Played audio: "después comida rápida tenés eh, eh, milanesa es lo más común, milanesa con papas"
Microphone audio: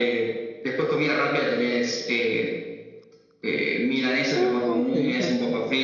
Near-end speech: present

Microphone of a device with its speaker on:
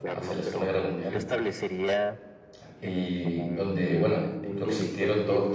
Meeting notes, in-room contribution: present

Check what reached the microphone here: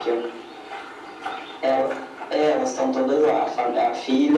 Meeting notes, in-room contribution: none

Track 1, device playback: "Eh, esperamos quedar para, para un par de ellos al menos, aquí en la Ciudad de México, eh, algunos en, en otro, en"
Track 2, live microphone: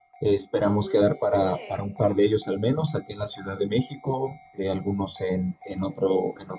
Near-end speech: present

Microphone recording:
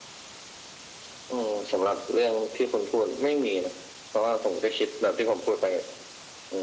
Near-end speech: none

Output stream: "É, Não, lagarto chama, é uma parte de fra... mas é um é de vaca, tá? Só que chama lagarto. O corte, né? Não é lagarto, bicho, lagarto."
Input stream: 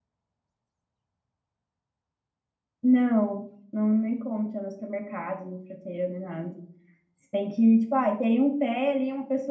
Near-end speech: present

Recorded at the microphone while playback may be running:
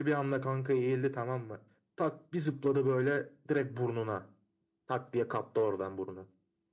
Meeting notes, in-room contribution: none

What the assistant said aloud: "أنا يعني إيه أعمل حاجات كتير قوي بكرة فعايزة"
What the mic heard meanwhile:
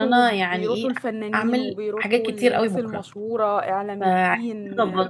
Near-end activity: present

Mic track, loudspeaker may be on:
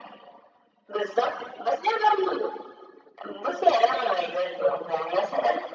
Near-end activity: none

